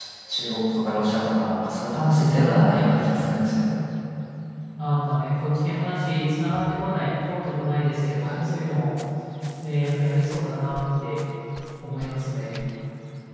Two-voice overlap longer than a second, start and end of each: none

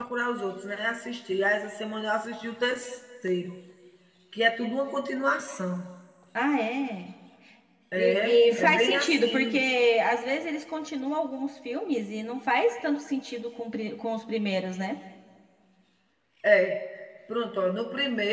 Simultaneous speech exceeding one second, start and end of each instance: 8.0-9.6

